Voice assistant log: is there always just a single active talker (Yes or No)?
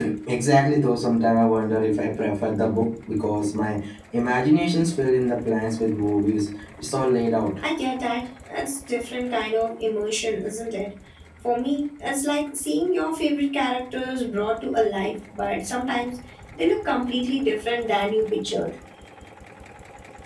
Yes